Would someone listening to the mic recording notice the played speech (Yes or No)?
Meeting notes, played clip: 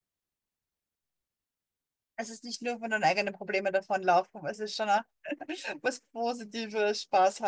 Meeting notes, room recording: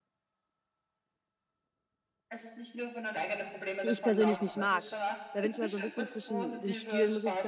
Yes